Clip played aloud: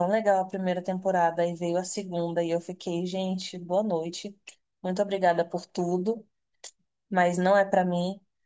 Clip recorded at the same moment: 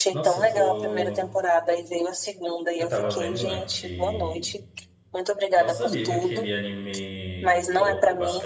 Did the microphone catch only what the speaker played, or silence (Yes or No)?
No